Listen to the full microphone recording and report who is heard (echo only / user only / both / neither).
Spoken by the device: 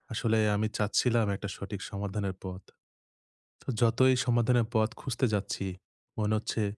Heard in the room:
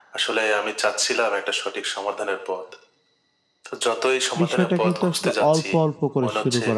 both